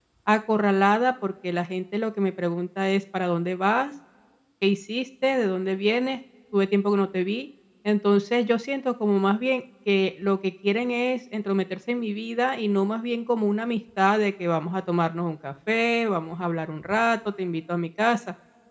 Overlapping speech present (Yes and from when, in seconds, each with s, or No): No